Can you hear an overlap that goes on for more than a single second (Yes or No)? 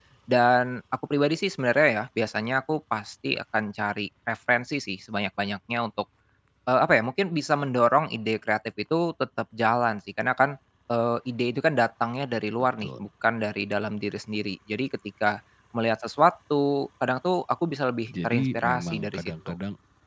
Yes